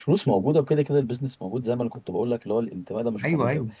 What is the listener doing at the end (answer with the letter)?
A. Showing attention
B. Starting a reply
A